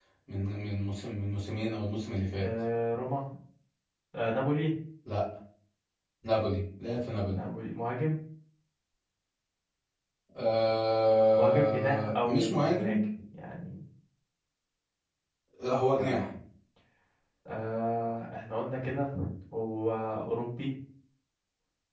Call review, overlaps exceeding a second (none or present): present